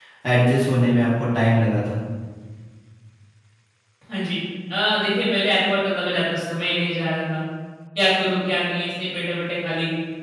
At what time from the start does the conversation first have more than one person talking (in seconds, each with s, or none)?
none